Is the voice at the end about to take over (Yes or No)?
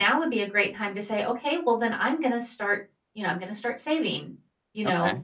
No